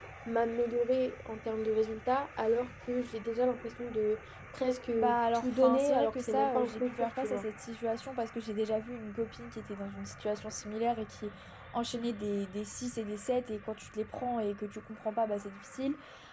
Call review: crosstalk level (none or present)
present